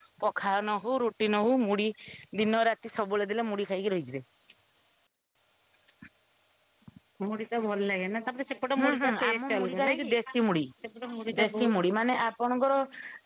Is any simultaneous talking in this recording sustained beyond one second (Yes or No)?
Yes